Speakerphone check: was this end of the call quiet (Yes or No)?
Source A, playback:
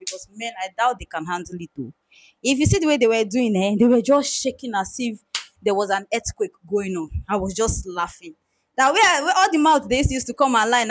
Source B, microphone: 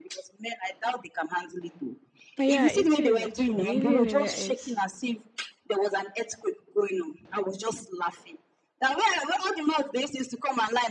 No